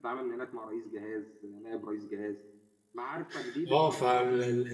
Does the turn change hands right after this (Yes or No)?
Yes